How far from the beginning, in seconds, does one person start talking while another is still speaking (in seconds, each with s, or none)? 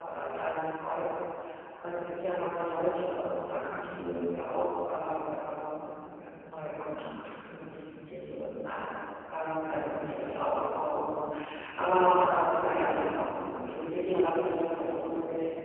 14.0 s